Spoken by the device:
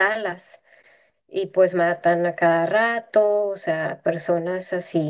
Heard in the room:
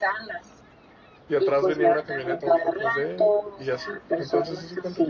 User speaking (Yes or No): Yes